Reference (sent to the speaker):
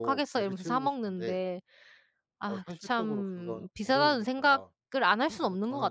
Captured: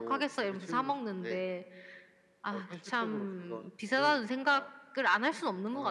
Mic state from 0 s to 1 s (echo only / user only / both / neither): echo only